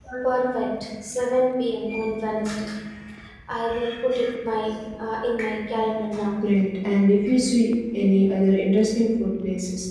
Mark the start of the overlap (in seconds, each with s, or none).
none